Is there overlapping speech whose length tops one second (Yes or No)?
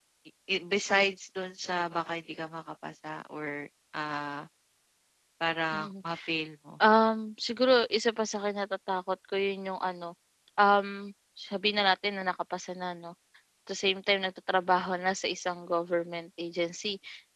No